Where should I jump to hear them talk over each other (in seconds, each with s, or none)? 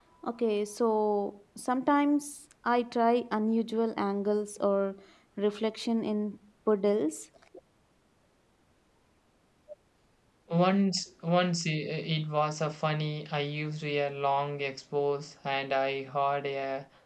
none